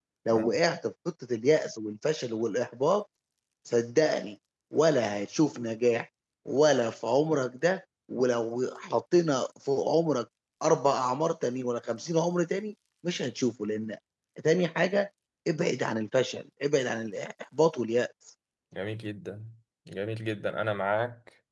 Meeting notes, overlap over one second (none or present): none